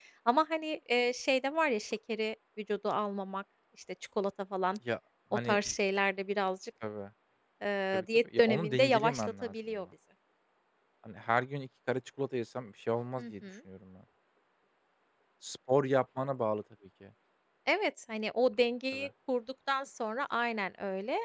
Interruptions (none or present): present